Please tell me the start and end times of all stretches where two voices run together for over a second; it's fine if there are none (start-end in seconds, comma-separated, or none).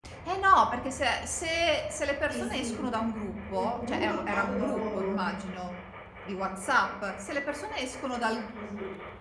3.5-5.2